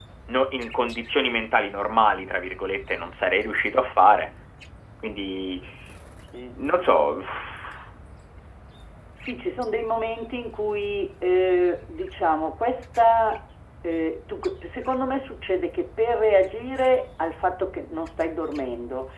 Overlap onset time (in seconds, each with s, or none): none